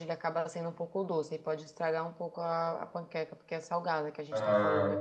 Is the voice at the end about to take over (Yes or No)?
Yes